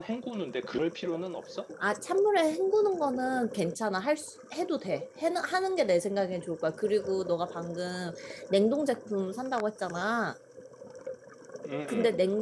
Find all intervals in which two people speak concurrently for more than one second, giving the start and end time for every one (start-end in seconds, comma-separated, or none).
none